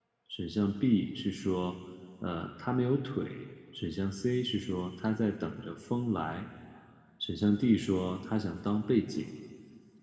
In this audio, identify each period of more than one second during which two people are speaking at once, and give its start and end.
none

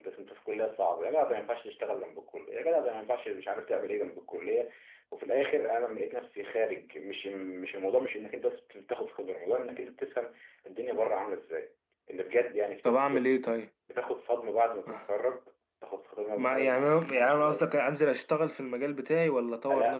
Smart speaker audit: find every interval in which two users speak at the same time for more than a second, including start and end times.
16.4-17.7

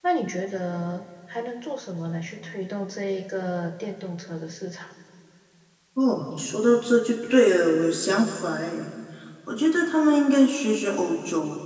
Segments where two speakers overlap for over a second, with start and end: none

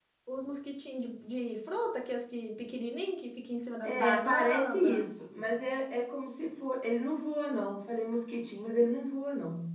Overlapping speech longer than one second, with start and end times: 3.8-5.1

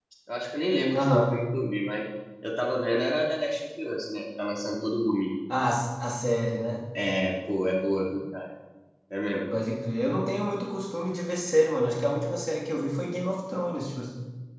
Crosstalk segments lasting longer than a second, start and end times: none

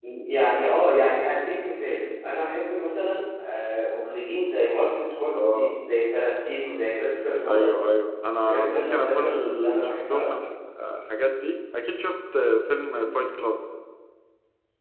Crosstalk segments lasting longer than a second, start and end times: 8.5-10.3

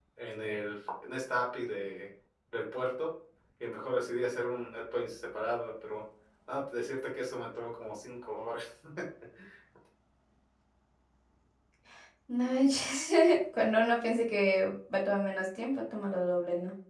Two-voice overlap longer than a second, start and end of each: none

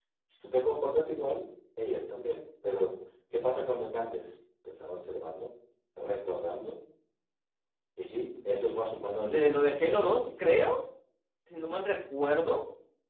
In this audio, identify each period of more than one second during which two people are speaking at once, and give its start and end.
9.3-10.5

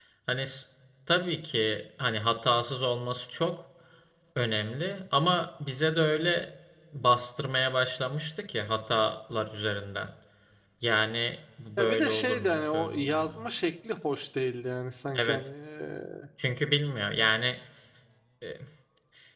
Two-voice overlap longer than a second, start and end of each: 11.8-13.2

